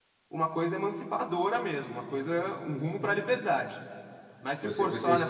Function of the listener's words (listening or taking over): listening